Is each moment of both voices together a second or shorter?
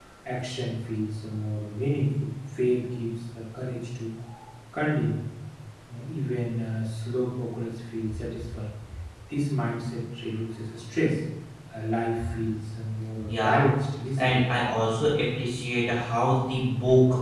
Yes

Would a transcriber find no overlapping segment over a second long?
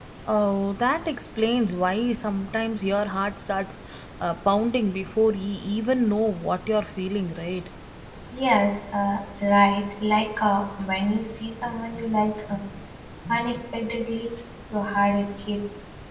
Yes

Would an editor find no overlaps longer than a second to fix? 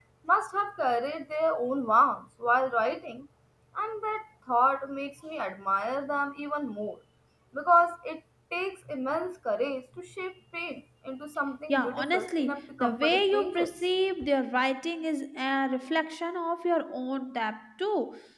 No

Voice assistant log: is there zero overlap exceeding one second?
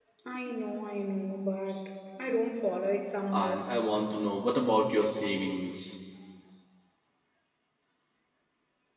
Yes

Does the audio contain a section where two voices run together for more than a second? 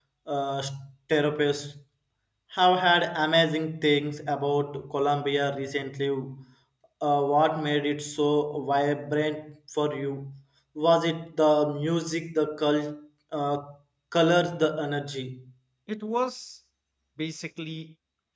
No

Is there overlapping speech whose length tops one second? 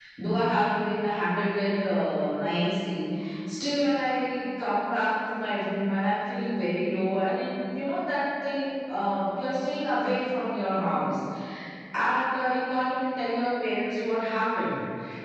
No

